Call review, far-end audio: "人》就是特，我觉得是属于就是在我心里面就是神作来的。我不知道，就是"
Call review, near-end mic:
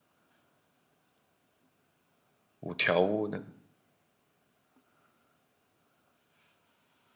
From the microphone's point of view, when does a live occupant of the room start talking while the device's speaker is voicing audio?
2.6 s

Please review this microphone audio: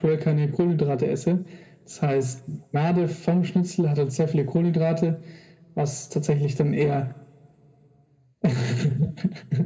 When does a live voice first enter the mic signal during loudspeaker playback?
none

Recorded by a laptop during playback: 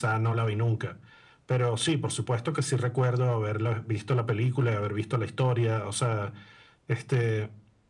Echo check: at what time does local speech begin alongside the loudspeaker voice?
none

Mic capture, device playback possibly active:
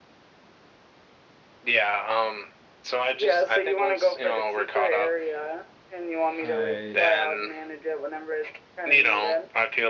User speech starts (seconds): 6.4 s

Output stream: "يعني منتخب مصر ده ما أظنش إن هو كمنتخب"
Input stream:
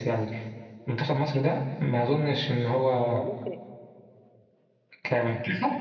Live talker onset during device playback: 3.0 s

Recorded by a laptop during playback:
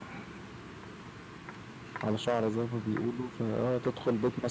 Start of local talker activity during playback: 2.0 s

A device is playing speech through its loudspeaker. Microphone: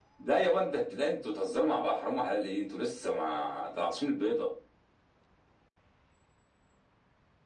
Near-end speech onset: none

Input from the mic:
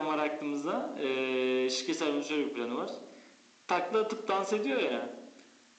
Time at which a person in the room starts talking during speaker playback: none

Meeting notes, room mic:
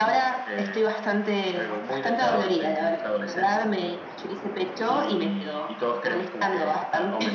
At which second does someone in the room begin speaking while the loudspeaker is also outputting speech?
none

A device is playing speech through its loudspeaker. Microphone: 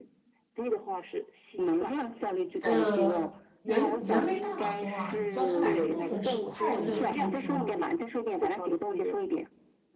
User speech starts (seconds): 2.5 s

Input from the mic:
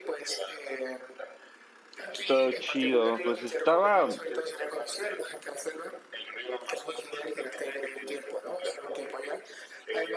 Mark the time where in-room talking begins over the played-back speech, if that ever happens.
2.2 s

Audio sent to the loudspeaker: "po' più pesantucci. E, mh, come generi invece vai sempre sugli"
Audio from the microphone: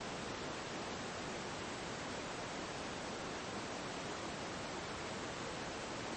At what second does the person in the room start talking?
none

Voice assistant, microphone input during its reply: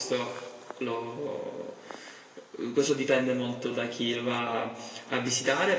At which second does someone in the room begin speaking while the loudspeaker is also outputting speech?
none

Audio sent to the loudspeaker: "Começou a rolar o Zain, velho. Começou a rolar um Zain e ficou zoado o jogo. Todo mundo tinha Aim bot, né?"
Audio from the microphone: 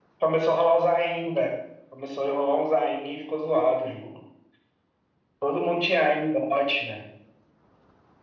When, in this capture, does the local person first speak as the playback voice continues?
none

